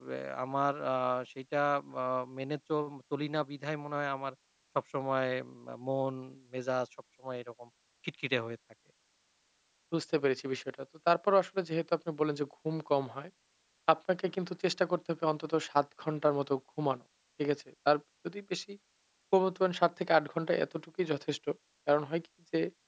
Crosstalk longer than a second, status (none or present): none